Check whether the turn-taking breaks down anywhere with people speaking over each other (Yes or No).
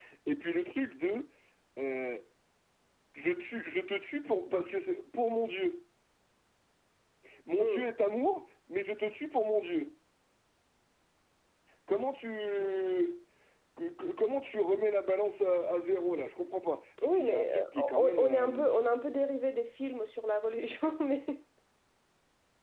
Yes